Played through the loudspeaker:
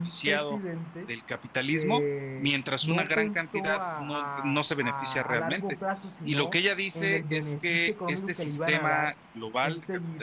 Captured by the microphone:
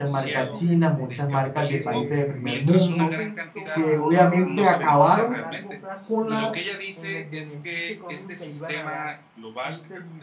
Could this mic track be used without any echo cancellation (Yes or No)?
No